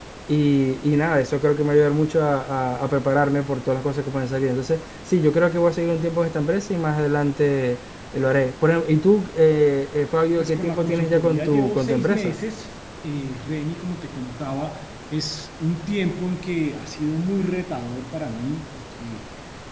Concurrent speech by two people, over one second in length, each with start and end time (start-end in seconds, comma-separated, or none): 10.4-12.4